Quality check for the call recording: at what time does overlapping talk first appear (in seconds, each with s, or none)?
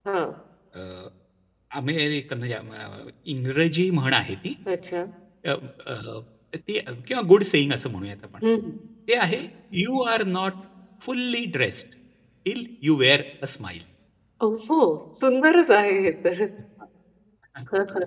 none